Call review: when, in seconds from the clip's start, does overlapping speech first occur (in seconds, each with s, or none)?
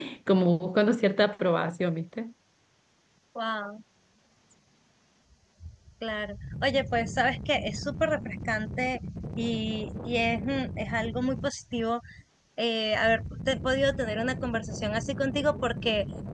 none